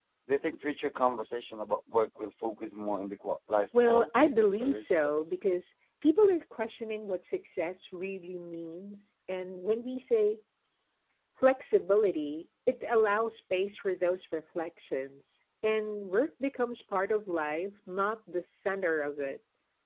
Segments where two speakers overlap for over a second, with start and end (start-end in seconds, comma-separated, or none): 3.8-5.3